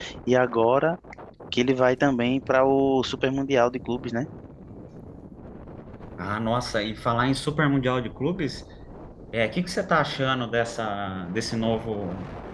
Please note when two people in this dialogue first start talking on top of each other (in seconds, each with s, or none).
none